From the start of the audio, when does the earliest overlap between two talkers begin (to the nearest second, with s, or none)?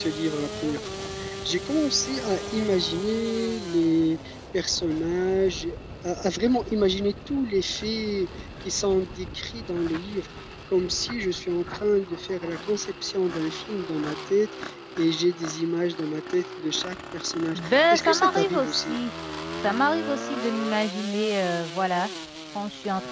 18 s